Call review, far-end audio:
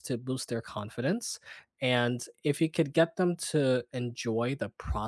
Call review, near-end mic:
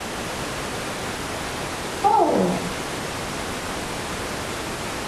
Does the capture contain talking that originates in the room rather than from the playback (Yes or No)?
Yes